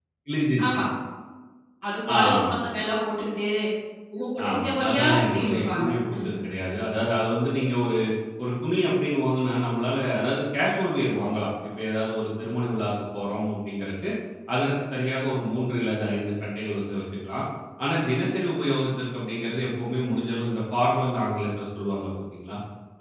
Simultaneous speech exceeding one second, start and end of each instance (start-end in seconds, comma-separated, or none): 4.5-6.3